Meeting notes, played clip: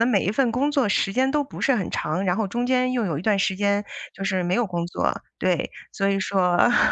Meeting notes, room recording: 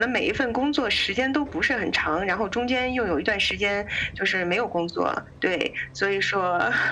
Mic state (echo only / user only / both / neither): echo only